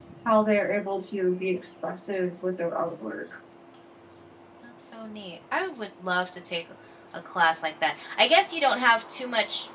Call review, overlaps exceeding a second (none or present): none